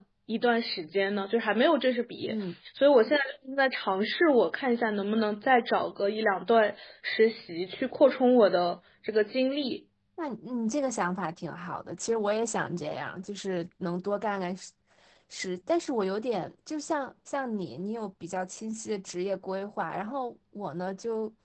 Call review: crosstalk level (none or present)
none